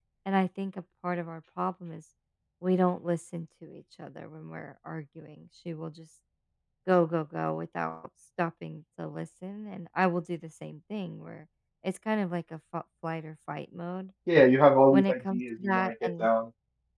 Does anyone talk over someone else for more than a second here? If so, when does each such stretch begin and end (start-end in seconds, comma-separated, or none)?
14.9-16.3